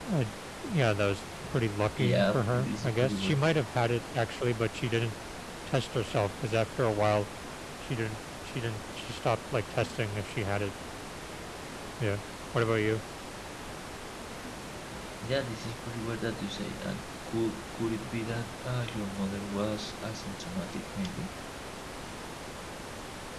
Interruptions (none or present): present